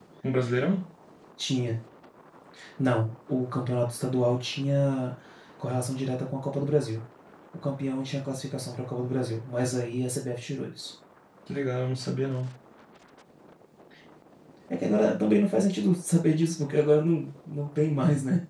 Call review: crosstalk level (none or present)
none